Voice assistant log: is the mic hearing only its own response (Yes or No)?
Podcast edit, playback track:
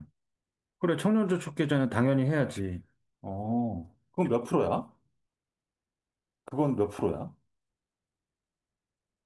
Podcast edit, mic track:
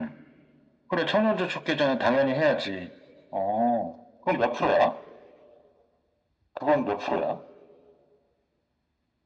Yes